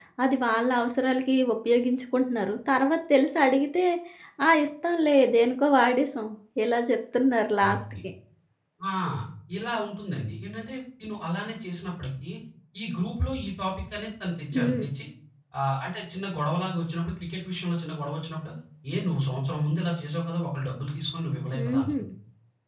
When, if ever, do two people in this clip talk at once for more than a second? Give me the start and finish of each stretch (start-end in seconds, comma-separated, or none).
none